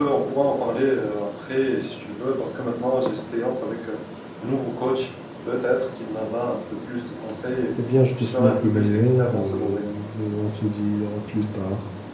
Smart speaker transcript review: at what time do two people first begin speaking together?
8 s

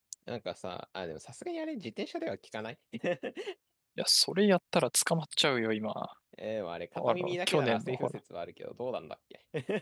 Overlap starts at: 7 s

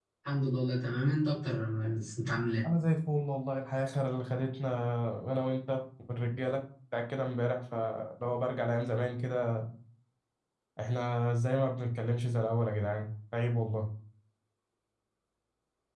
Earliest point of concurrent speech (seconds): none

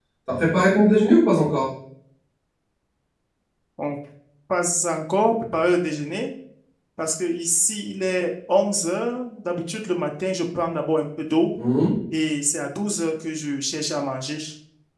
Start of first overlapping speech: none

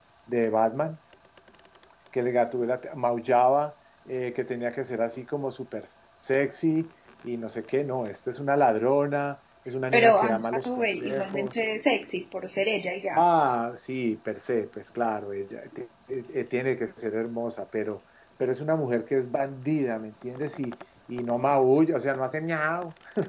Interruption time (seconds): 10 s

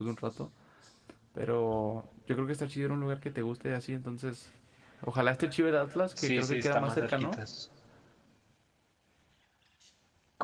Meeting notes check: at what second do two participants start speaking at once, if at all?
6 s

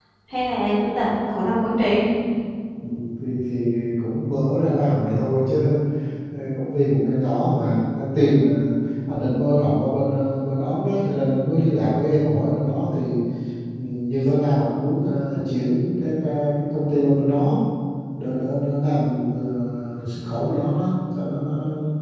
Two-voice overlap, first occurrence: none

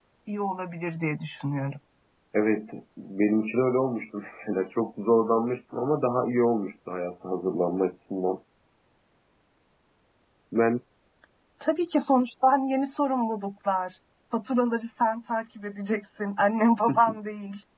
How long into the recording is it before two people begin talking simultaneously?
none

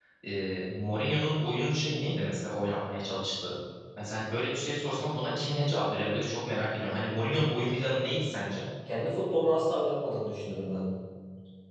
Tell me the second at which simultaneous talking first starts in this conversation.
none

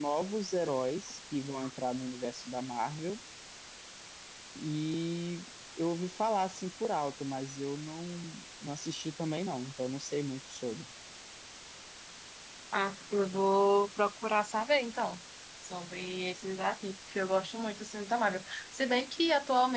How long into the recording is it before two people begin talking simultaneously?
none

